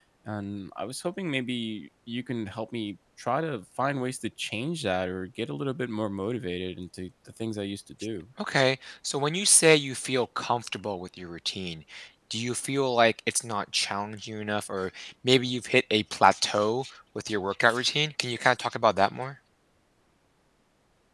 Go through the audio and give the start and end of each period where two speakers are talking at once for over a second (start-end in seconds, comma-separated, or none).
none